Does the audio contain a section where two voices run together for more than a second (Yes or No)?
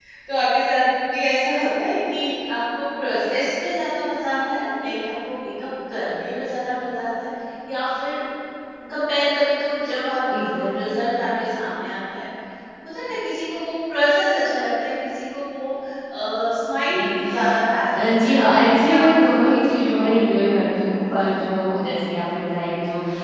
Yes